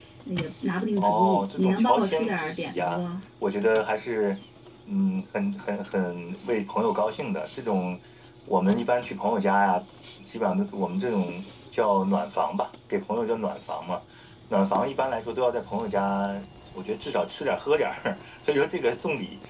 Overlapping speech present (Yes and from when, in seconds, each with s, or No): Yes, from 1.0 s